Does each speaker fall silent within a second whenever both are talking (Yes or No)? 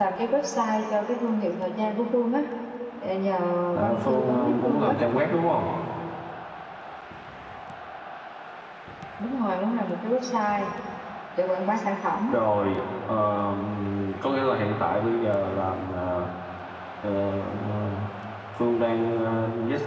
No